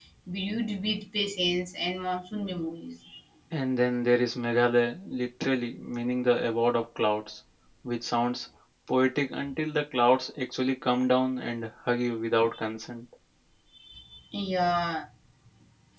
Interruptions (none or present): none